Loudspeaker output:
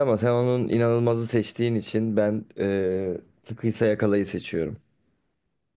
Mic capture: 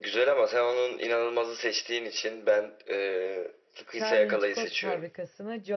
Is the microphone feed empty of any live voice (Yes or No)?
No